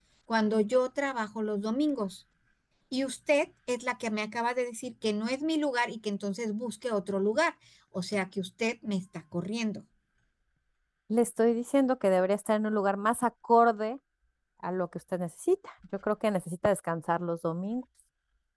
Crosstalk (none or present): none